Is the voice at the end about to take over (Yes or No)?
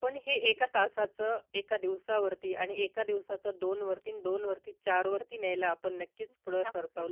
Yes